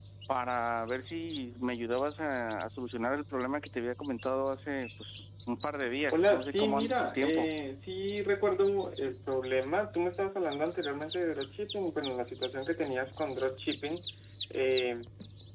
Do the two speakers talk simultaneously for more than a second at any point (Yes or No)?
Yes